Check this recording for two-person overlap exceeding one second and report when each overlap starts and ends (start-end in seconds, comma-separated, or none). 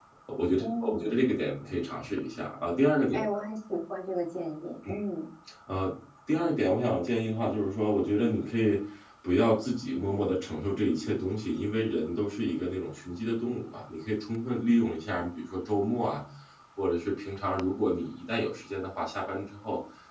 none